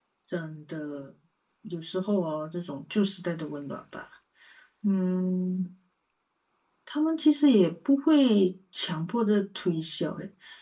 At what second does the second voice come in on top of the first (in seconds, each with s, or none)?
none